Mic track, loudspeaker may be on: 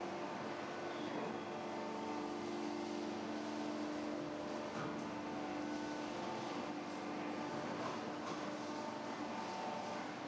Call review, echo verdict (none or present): none